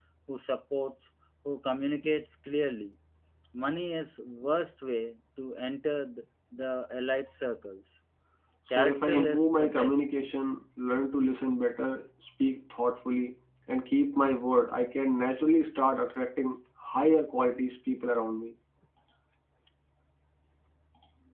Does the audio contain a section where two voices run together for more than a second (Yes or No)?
Yes